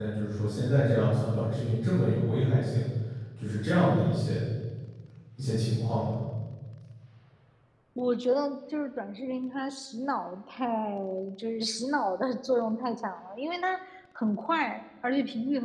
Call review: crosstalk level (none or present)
none